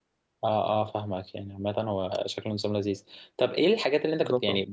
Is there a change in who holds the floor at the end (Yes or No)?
No